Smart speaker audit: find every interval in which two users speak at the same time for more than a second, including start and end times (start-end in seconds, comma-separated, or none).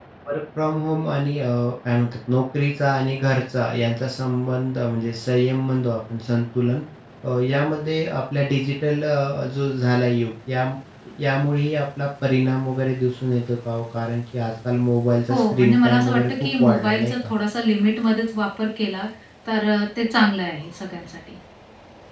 15.3-17.3